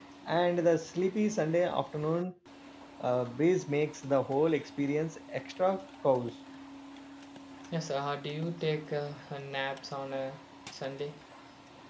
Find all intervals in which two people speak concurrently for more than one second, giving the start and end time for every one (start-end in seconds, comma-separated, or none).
none